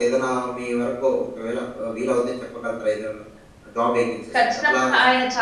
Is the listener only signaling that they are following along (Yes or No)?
No